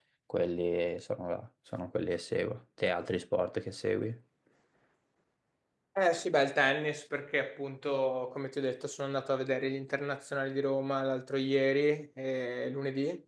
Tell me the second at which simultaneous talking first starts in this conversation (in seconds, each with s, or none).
none